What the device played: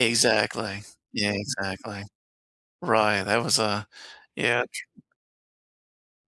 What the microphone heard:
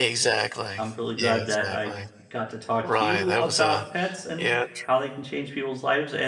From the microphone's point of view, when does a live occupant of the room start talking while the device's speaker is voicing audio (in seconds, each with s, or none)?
0.8 s